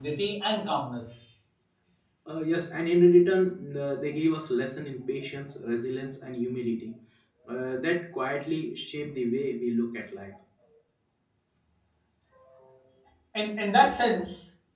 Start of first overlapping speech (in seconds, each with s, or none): none